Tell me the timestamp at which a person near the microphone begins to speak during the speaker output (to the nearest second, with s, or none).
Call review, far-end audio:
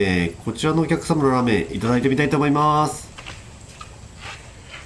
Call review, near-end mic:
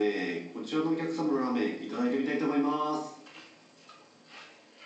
none